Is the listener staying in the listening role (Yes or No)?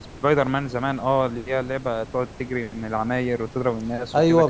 No